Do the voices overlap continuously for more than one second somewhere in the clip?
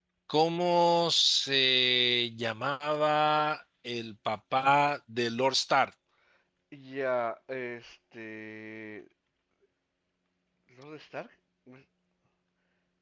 No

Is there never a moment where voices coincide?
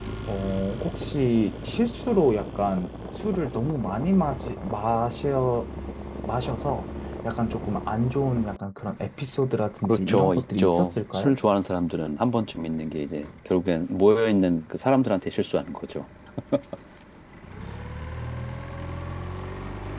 No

